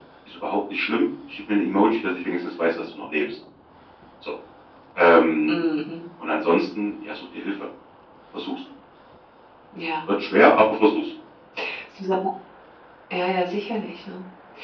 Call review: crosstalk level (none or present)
none